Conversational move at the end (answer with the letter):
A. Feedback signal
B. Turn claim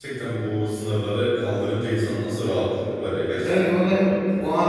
B